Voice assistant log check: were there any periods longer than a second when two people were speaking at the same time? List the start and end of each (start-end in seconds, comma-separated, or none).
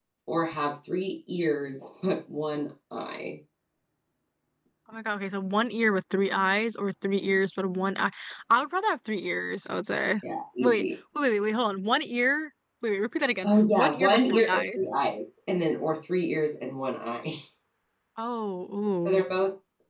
13.4-14.9